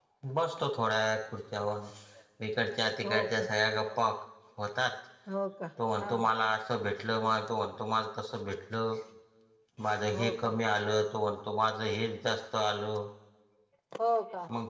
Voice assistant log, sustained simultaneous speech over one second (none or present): none